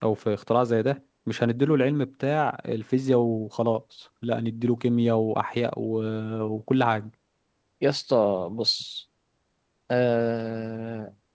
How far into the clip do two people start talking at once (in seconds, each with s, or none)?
none